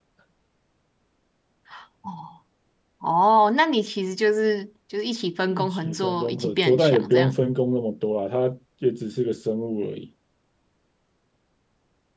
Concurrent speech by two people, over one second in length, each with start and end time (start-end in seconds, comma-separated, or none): 5.5-7.4